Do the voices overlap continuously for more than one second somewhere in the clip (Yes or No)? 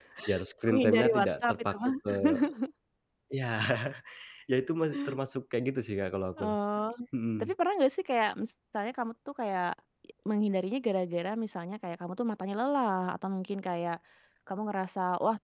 Yes